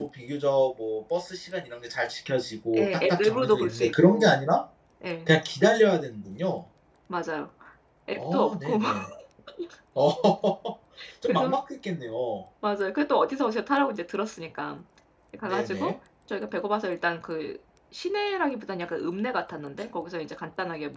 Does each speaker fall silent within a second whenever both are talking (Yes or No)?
No